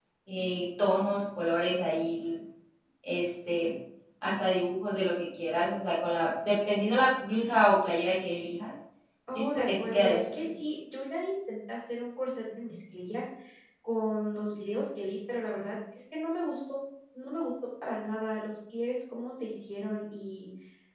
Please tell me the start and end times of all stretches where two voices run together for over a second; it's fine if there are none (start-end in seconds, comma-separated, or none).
9.3-10.6